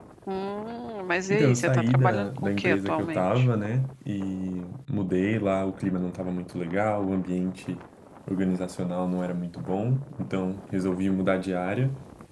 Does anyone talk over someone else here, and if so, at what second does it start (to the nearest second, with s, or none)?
1 s